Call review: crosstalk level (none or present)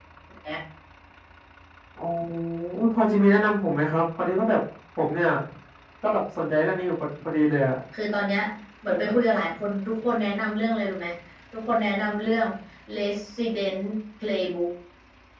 none